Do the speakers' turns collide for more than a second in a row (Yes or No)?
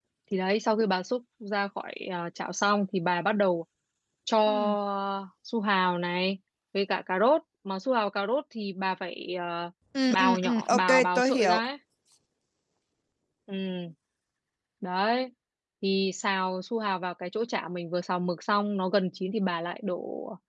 Yes